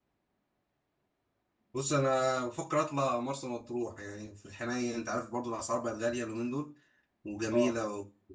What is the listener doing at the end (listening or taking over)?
listening